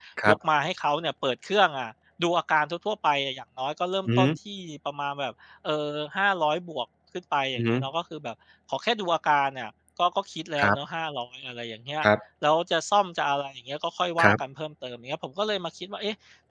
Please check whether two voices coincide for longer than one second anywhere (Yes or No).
No